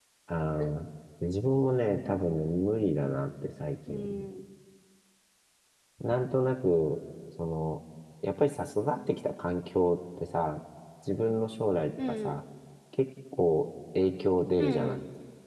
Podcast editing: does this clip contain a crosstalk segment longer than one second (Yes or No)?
No